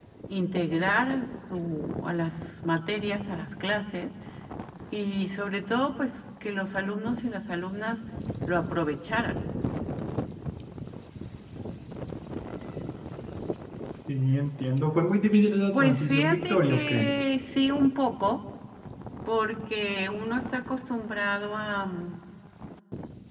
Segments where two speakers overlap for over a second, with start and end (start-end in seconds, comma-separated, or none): 15.7-17.2